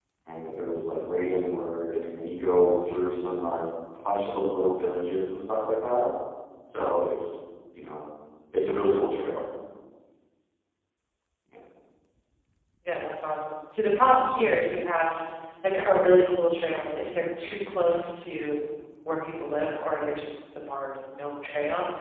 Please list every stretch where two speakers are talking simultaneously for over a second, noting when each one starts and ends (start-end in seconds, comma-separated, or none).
none